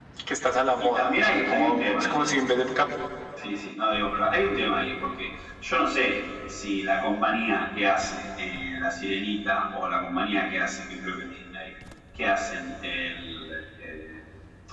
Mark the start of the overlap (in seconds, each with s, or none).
0.8 s